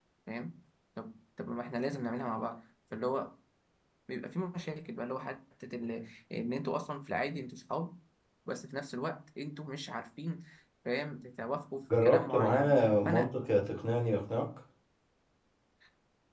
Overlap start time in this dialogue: 11.9 s

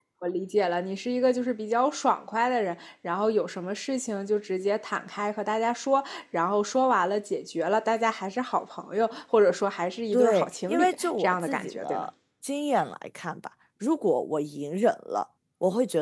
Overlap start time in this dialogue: 10.1 s

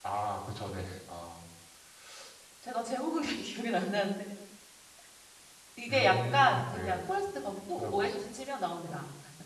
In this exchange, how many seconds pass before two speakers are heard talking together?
5.9 s

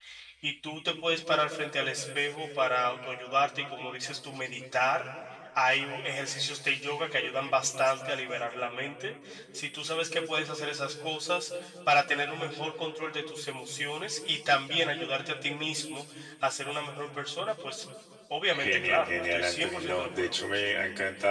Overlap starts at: 18.5 s

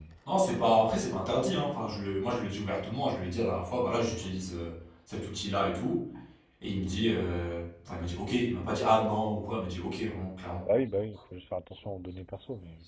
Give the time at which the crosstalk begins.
none

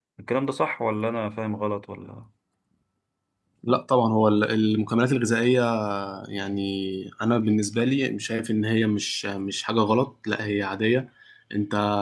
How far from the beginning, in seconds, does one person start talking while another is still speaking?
none

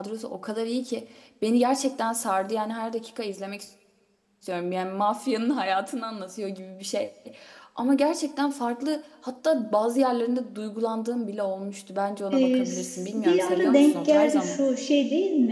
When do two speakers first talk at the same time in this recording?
12.3 s

